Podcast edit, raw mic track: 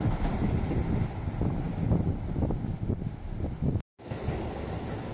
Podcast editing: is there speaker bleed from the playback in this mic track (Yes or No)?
No